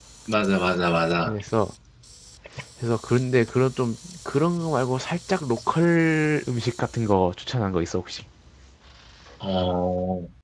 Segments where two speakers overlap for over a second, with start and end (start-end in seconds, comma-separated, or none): none